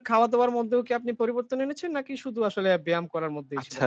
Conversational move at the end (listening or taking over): taking over